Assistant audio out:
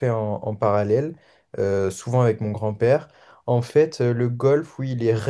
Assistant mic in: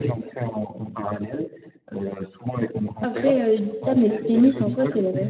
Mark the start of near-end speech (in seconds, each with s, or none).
3.0 s